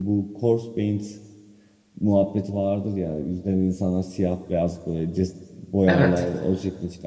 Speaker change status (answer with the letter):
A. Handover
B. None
B